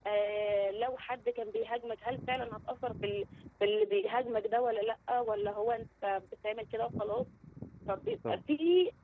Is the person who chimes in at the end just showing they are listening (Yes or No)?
Yes